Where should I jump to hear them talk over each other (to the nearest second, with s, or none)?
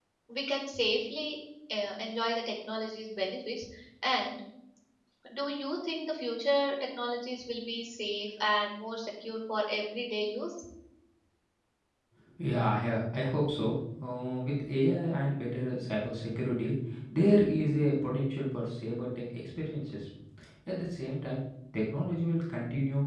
none